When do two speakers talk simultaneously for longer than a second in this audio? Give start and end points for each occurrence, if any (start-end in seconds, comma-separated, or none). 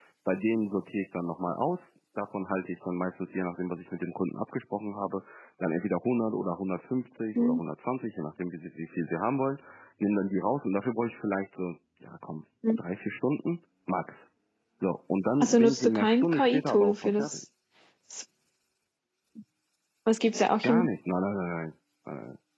15.4-17.4